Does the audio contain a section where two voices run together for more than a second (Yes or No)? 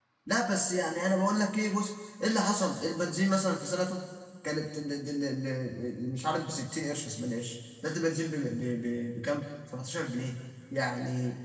No